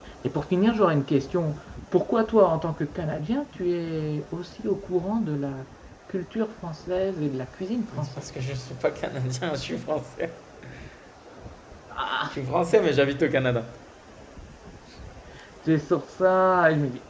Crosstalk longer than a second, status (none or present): none